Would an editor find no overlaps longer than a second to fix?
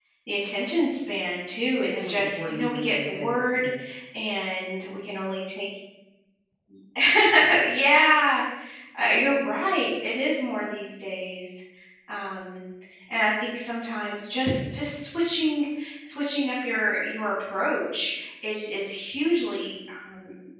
No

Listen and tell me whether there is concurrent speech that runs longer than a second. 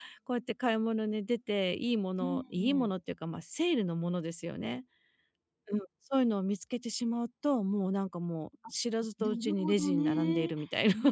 Yes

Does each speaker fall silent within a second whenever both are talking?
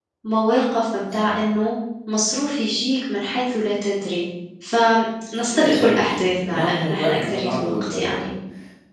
No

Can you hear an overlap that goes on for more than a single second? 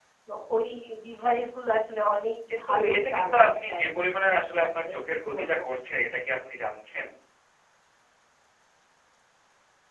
Yes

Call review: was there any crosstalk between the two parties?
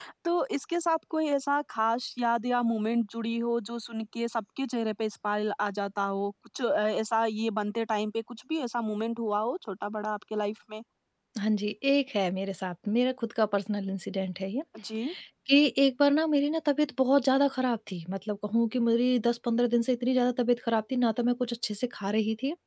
No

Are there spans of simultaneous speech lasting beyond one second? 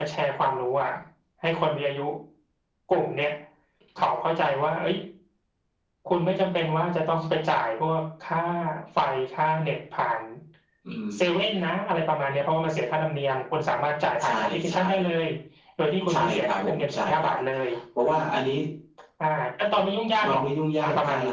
Yes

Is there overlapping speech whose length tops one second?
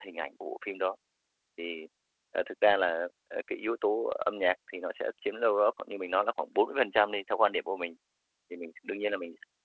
No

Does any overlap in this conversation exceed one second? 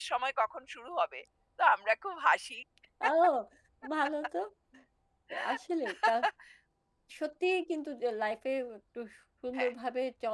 No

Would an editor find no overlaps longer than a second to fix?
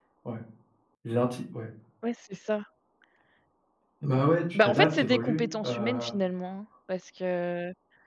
No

